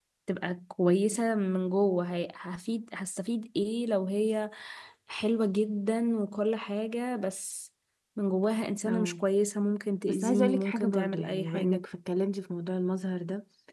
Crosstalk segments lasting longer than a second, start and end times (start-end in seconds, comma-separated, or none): 10.1-11.8